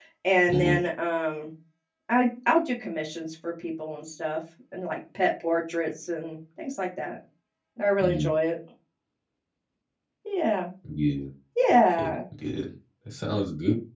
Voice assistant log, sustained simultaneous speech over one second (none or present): none